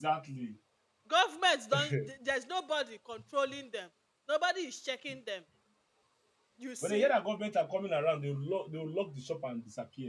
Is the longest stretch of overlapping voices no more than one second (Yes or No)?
Yes